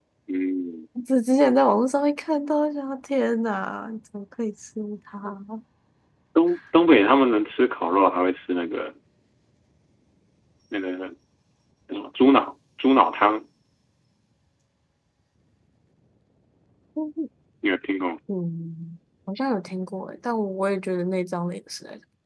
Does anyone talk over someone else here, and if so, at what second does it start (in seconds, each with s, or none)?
none